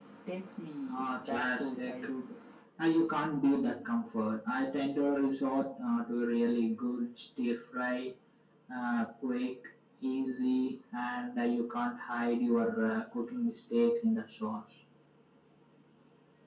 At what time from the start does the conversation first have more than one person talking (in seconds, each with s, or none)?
0.9 s